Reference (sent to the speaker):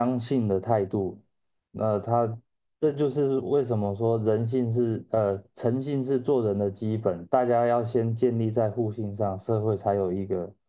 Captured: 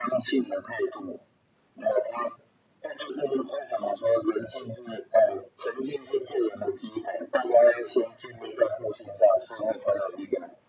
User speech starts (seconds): none

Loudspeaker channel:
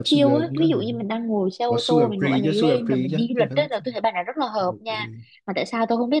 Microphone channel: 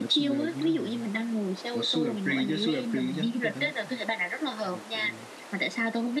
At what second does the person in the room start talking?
none

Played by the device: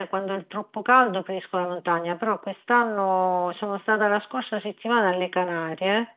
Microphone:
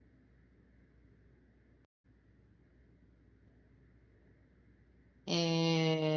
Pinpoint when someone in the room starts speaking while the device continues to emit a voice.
5.2 s

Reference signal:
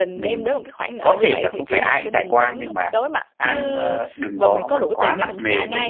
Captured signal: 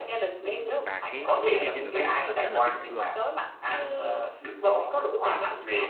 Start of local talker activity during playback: 0.6 s

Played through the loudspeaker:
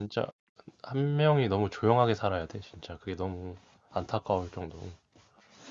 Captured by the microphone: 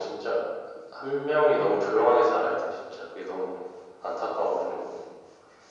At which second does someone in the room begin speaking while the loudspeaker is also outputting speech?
none

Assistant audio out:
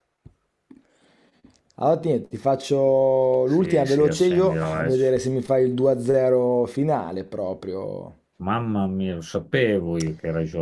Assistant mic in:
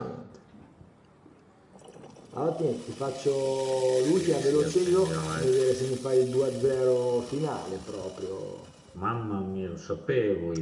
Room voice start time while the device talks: none

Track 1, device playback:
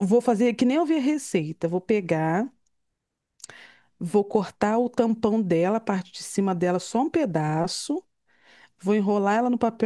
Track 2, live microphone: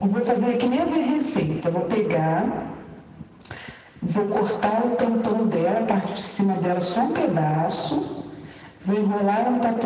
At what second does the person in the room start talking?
none

